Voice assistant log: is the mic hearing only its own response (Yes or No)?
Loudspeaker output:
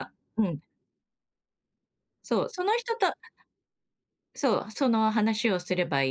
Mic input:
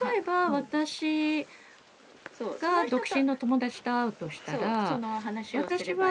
No